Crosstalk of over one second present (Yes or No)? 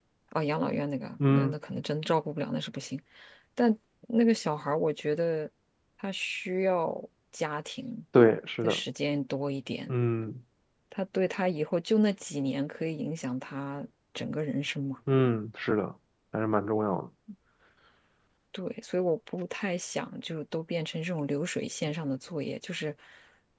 No